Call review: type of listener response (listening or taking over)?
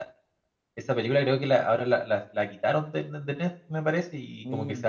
listening